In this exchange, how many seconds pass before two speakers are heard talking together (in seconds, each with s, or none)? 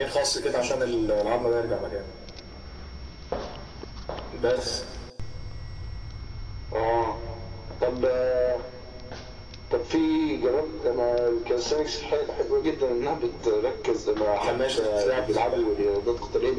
14.4 s